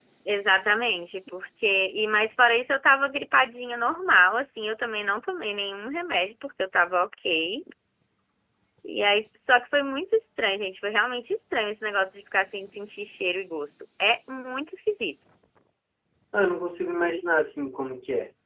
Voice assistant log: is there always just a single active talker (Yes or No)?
Yes